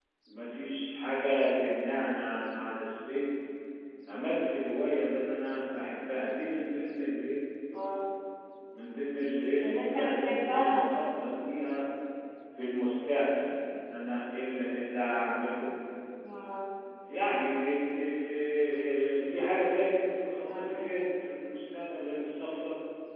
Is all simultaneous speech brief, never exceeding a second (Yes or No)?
No